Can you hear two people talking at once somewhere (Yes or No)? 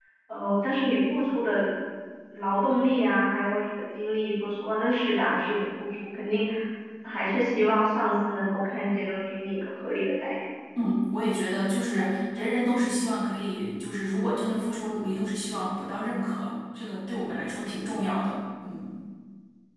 No